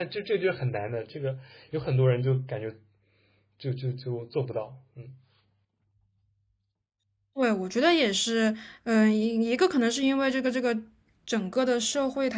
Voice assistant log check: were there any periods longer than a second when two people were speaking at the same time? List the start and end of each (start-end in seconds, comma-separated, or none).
none